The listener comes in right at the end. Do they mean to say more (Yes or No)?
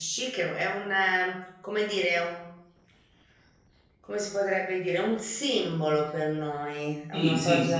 Yes